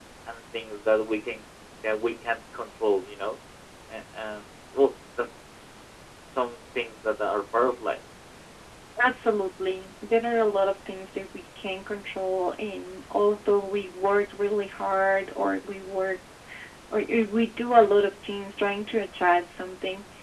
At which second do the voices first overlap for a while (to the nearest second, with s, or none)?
none